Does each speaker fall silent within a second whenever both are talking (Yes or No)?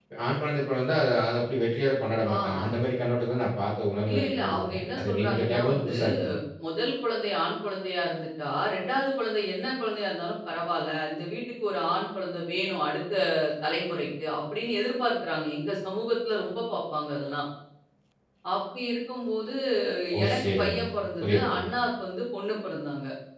No